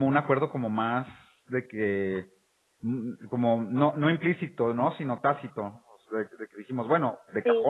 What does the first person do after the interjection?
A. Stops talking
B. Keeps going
B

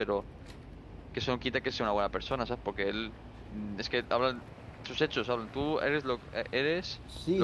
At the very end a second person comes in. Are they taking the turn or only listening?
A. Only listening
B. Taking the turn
B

